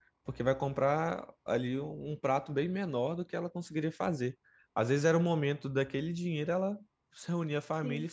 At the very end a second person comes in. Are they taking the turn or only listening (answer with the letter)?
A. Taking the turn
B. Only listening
B